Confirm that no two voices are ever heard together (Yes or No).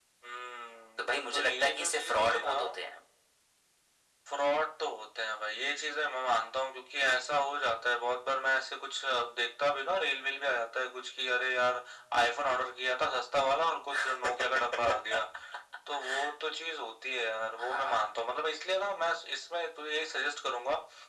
No